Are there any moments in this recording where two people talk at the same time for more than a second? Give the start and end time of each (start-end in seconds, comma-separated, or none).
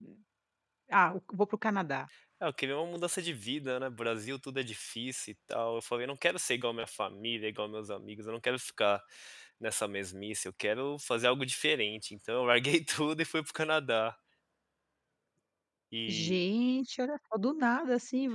none